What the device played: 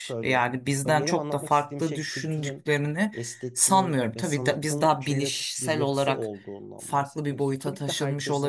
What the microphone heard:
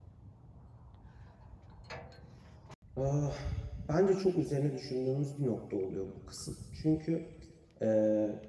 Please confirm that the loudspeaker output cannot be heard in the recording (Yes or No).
Yes